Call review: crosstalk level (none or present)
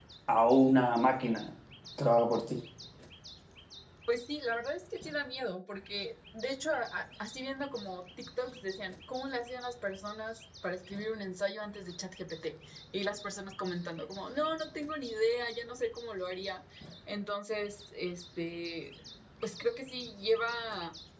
none